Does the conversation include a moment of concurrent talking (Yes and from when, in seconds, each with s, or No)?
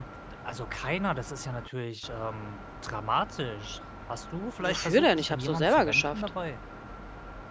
Yes, from 4.6 s